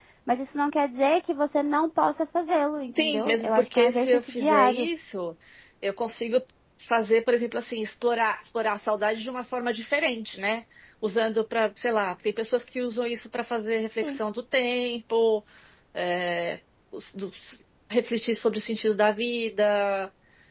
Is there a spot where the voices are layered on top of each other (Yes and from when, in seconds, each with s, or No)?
Yes, from 2.9 s